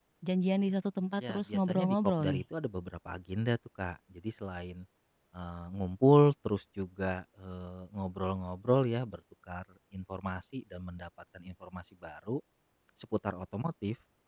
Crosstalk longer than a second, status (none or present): present